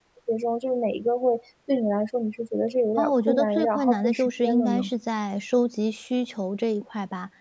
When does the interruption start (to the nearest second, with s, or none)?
3 s